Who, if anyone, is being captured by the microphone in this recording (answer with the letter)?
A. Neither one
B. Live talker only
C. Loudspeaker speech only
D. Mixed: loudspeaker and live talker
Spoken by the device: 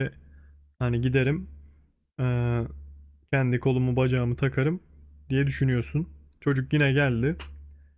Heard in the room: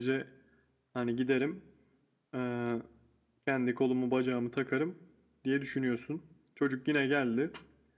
C